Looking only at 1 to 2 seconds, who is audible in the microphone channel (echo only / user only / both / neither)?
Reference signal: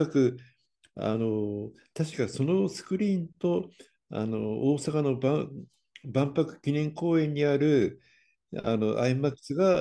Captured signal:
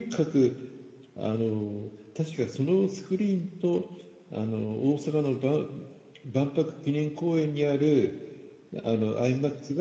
echo only